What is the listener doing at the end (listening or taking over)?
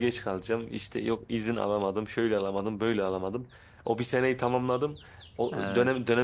listening